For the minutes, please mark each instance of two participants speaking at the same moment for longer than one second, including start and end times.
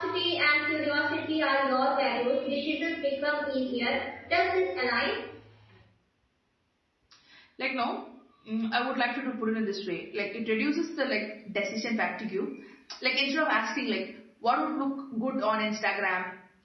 none

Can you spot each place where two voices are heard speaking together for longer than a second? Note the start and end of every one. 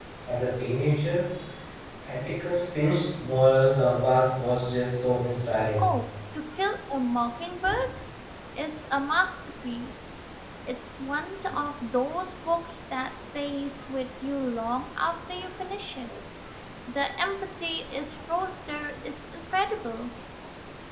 none

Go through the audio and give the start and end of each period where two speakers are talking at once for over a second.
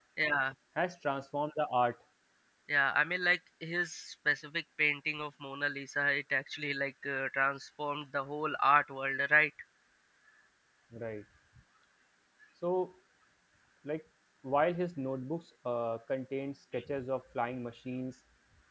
none

